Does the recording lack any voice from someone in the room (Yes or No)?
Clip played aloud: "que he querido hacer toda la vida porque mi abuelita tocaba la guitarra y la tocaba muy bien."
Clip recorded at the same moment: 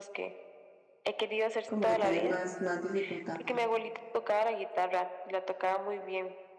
No